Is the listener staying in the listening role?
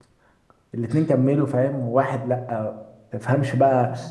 Yes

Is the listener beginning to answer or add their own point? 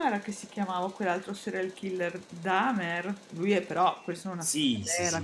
Yes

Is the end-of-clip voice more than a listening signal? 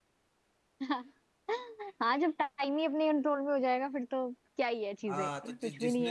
Yes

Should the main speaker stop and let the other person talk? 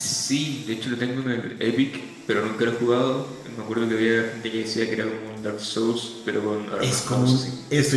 Yes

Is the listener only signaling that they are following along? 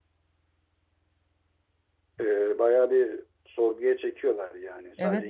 No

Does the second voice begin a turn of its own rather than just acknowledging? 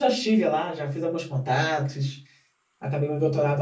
No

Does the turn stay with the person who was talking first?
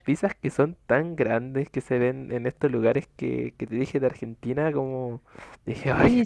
No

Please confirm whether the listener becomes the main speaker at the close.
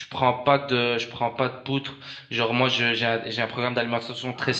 No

